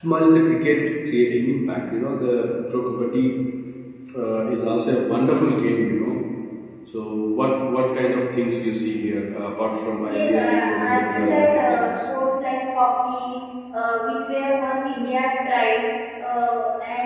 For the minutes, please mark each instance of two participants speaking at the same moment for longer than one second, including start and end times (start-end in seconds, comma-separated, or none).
10.0-11.8